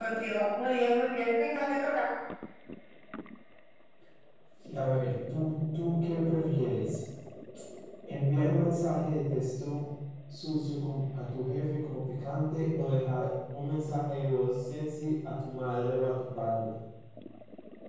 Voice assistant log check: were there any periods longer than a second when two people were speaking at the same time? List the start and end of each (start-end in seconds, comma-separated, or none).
none